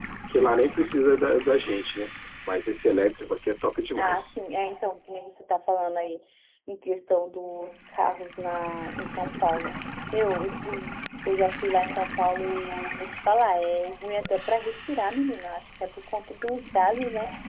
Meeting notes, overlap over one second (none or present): none